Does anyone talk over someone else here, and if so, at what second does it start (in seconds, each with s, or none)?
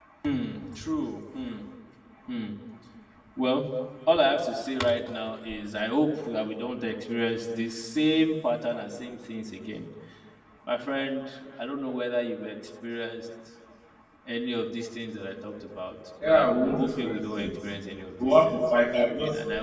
16.2 s